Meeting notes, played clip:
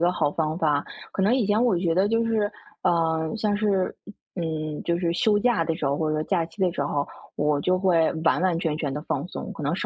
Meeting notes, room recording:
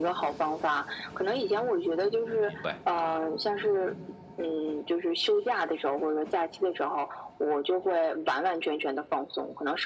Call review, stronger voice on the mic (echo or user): echo